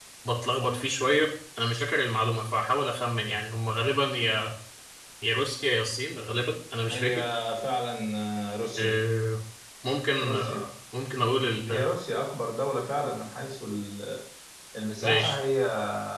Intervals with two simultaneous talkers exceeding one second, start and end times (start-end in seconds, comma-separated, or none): none